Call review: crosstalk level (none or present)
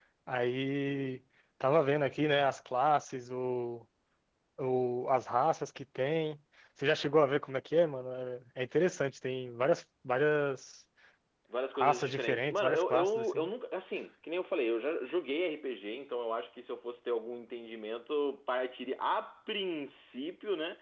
present